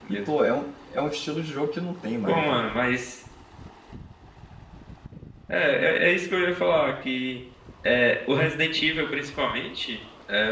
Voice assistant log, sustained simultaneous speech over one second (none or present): none